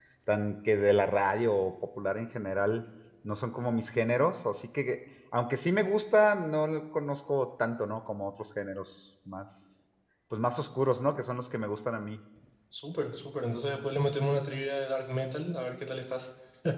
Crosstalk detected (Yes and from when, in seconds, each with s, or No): No